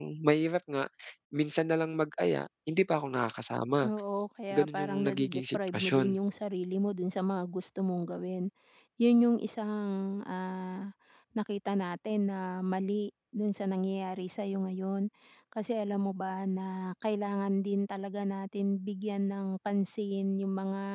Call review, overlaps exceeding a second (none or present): present